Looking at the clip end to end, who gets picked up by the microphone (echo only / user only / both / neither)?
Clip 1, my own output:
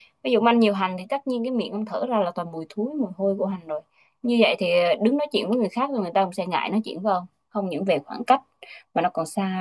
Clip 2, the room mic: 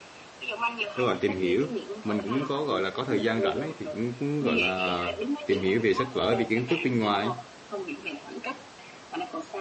both